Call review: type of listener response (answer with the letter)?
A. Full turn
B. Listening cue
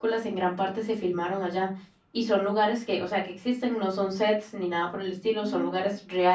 B